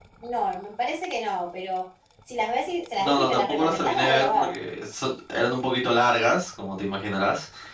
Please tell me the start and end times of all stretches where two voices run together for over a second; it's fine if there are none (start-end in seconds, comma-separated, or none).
3.0-4.5